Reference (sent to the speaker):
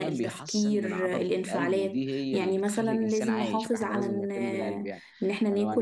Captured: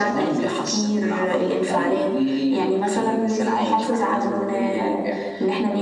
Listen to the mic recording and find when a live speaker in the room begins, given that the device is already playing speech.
none

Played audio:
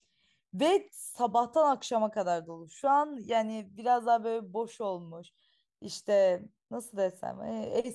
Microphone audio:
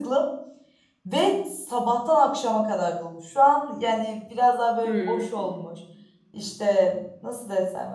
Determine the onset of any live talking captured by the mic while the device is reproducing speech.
4.8 s

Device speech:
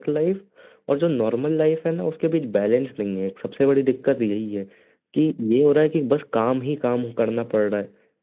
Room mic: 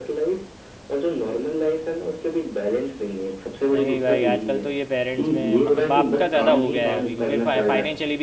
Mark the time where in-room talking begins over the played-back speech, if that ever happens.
3.7 s

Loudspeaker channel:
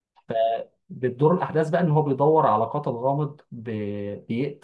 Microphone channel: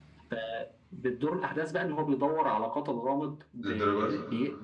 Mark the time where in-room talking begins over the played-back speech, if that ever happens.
3.6 s

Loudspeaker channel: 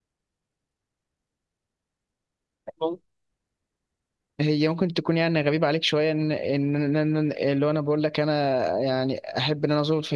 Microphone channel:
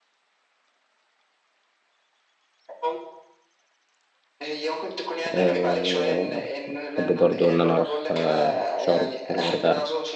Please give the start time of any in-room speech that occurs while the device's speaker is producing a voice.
5.3 s

